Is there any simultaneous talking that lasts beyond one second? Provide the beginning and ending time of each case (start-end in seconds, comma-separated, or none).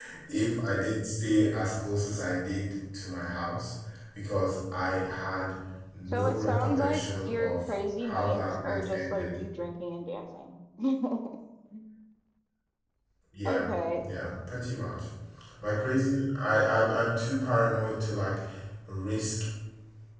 6.1-9.4